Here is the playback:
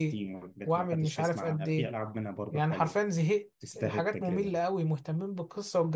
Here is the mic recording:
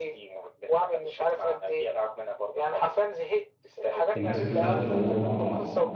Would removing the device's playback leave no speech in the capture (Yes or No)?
No